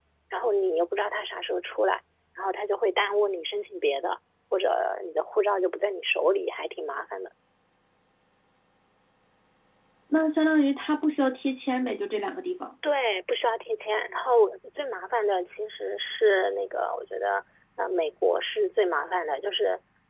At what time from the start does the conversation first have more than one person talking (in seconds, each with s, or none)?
none